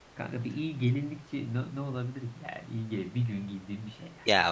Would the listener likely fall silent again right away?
No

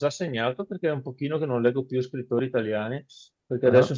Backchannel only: Yes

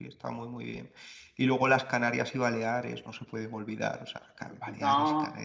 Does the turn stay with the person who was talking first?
Yes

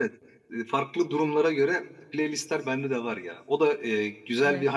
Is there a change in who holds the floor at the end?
No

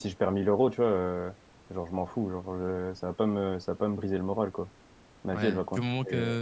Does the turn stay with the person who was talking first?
No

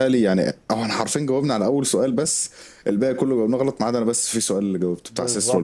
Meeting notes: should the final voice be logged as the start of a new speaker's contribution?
Yes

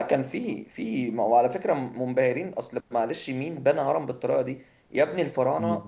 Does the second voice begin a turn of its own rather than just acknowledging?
No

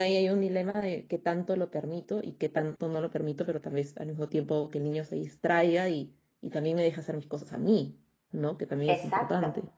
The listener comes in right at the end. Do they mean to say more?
Yes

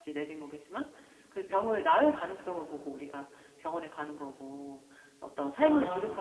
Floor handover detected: No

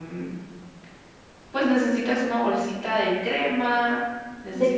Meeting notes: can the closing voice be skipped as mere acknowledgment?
No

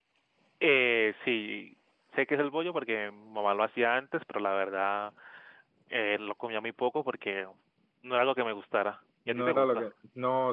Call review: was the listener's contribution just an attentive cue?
No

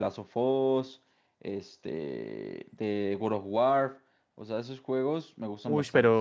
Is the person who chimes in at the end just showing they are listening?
No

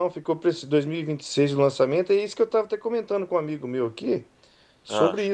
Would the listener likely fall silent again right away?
Yes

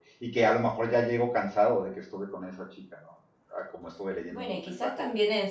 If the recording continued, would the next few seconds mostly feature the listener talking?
Yes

